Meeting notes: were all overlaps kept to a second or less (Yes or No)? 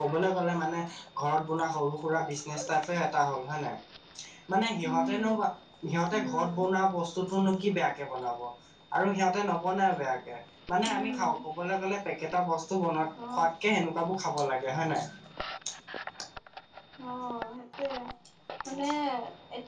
Yes